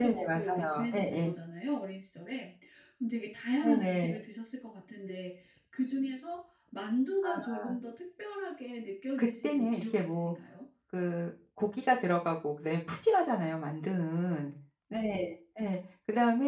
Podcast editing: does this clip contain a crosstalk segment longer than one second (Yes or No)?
Yes